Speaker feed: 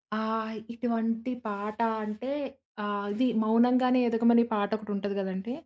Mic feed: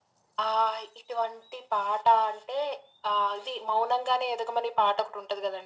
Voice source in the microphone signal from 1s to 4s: echo only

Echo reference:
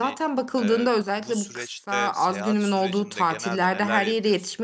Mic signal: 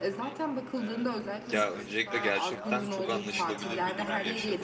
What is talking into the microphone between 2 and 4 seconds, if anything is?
both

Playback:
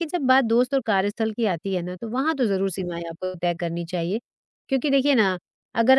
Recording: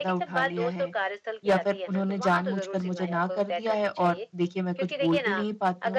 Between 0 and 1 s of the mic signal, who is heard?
both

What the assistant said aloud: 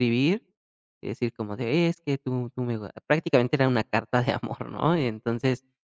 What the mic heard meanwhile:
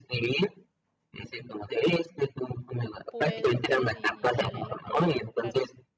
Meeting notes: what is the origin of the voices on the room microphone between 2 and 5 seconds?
both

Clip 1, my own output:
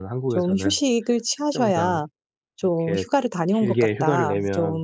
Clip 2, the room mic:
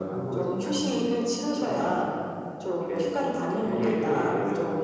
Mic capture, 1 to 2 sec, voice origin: echo only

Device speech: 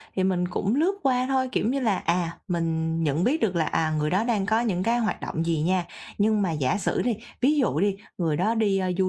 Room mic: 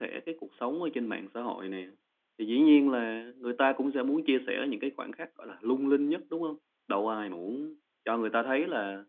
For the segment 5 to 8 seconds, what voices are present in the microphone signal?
user only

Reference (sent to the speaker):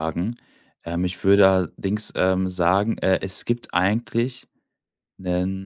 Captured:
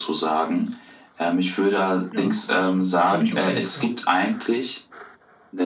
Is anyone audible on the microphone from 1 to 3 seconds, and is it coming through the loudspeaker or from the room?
both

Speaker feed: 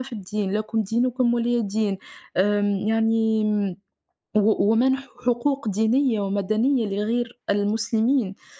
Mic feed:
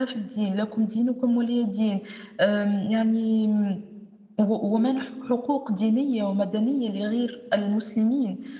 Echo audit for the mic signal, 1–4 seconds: echo only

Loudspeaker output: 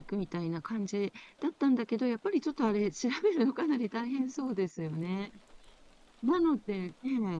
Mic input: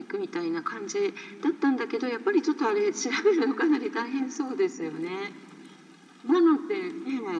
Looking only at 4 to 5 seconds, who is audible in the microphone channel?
echo only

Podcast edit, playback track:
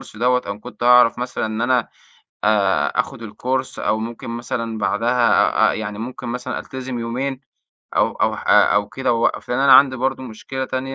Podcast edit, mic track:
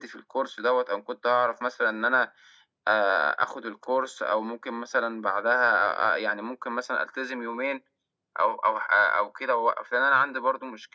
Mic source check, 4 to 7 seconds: echo only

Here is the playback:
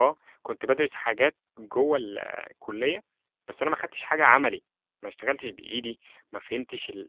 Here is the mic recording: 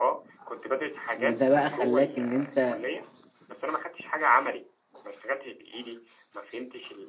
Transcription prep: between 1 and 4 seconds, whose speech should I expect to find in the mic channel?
both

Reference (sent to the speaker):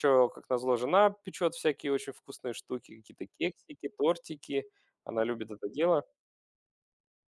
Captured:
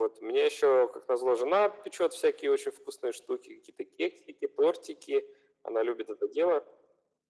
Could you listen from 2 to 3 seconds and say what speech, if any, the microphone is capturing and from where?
echo only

